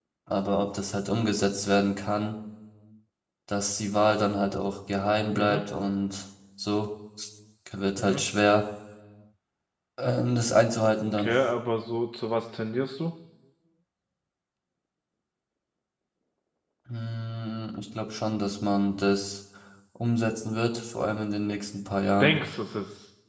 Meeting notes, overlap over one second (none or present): none